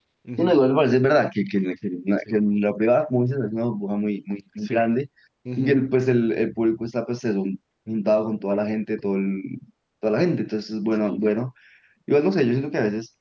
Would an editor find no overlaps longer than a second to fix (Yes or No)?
Yes